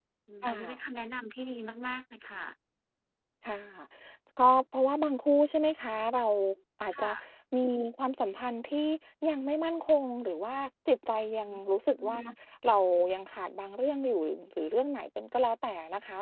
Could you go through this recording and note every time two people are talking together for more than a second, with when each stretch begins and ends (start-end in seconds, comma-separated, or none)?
none